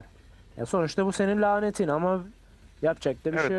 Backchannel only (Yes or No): No